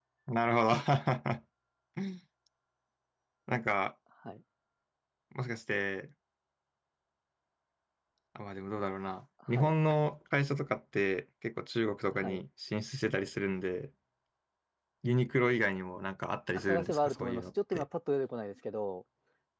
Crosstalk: present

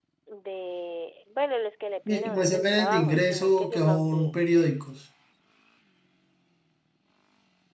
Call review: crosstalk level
present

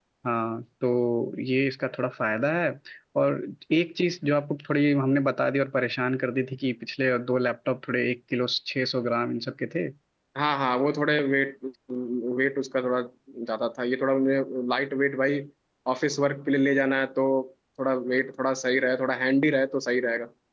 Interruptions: none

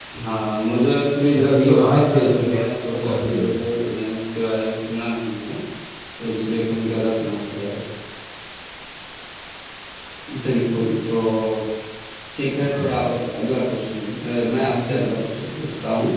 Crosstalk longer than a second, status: present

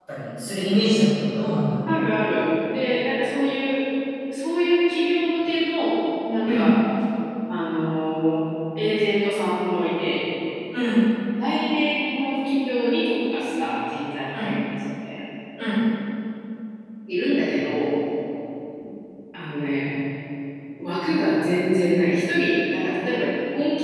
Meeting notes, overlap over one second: none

